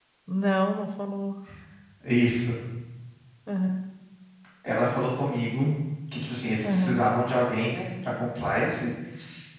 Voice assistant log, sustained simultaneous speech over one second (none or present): none